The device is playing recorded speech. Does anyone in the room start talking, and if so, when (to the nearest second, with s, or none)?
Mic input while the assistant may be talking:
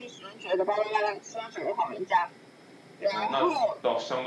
3 s